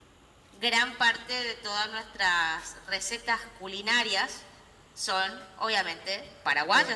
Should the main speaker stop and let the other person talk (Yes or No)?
Yes